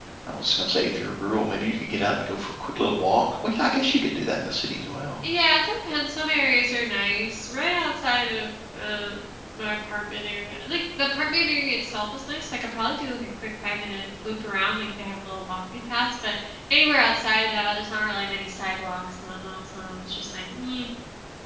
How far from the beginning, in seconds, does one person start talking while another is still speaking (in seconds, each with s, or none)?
none